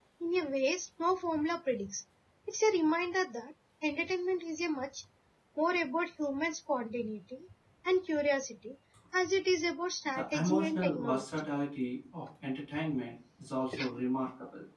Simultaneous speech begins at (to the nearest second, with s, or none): 10 s